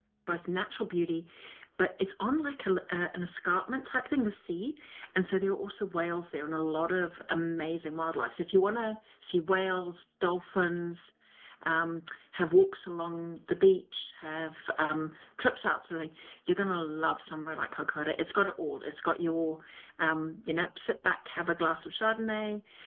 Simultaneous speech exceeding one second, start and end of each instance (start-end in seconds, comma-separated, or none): none